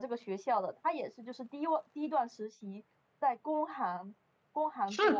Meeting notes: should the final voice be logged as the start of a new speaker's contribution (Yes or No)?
Yes